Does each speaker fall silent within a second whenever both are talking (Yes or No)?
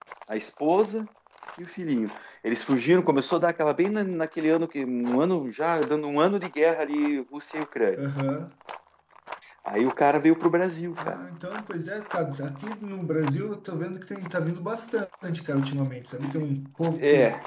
Yes